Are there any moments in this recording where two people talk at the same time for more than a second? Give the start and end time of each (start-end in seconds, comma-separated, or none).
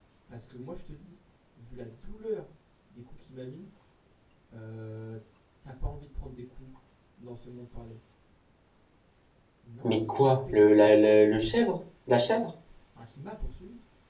9.8-11.8